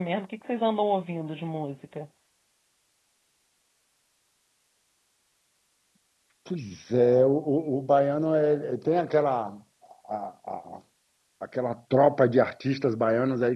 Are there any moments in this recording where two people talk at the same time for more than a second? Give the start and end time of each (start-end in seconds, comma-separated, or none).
none